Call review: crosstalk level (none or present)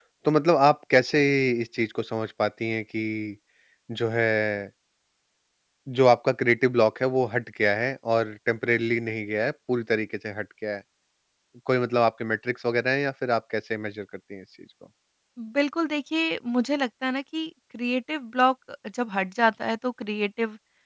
none